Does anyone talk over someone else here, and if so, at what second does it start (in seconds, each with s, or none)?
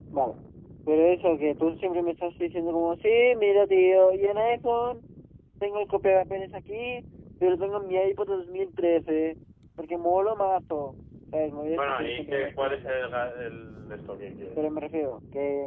11.7 s